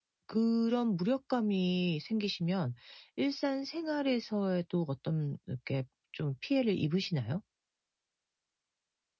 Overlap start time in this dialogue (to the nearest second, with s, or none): none